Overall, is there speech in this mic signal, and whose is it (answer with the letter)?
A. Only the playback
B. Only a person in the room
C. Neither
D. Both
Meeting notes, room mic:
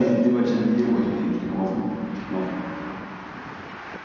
A